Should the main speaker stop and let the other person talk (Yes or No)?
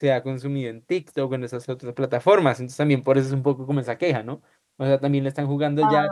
No